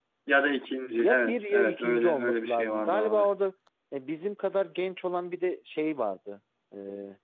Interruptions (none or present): present